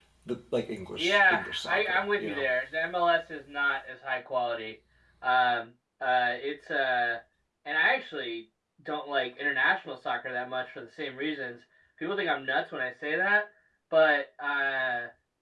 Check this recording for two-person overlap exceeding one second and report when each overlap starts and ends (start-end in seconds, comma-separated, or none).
1.0-2.4